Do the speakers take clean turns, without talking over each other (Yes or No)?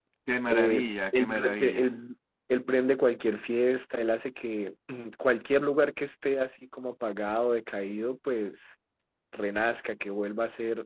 No